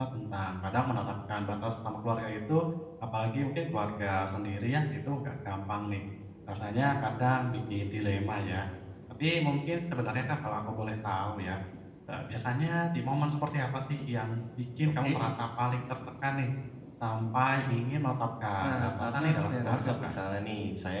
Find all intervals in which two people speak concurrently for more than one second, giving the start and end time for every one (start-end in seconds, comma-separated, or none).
18.6-20.1